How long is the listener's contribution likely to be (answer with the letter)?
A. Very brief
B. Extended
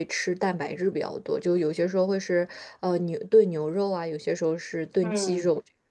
B